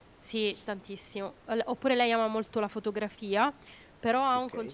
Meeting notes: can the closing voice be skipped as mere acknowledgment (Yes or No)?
Yes